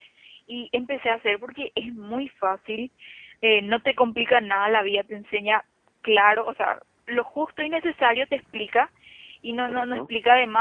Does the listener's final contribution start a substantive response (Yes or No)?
No